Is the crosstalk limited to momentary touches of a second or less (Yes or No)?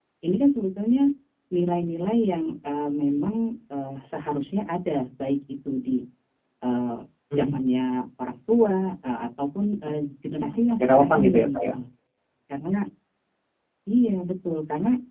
No